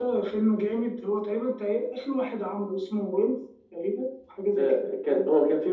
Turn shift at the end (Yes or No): Yes